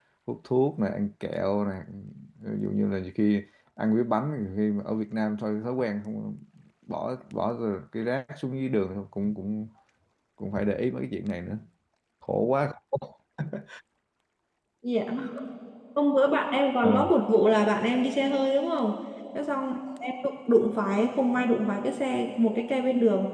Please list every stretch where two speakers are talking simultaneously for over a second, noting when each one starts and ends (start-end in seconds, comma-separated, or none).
none